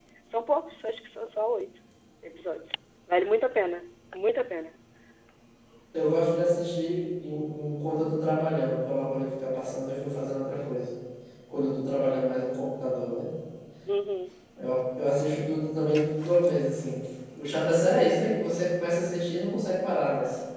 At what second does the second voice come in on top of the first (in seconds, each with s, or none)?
none